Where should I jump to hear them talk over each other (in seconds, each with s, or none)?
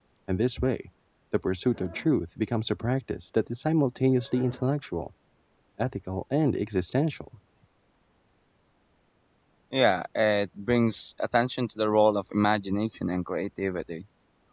none